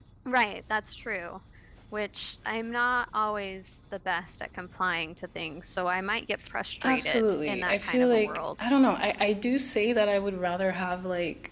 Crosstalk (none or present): present